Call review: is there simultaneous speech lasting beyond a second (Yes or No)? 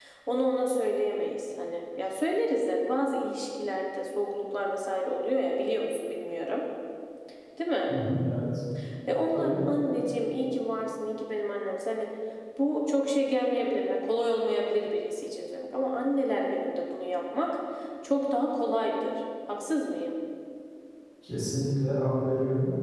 No